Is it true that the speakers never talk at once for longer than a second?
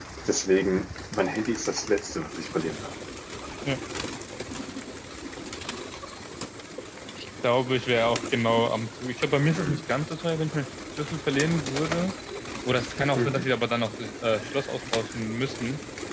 Yes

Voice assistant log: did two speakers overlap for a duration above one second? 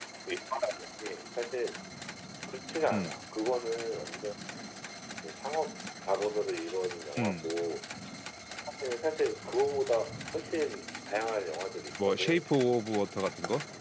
No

